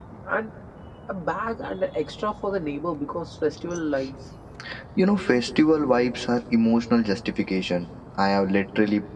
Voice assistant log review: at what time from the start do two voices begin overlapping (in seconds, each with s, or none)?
none